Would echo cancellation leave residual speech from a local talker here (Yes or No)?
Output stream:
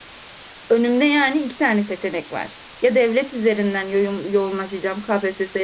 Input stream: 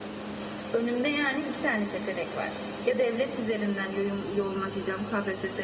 No